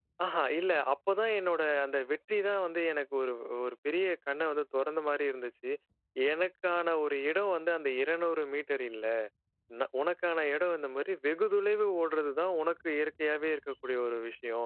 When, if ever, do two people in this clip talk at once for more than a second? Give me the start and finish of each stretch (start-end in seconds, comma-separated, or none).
none